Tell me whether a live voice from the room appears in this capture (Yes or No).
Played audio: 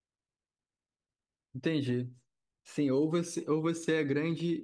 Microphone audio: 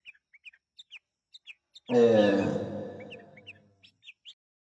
Yes